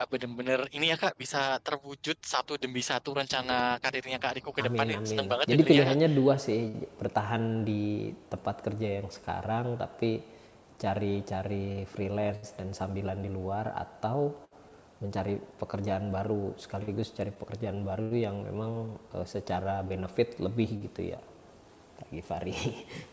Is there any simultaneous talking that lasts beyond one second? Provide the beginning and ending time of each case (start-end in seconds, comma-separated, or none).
4.6-6.0